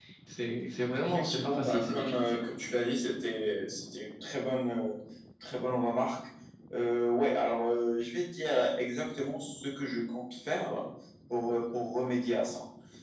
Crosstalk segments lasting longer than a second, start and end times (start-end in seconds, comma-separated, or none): 1.0-2.6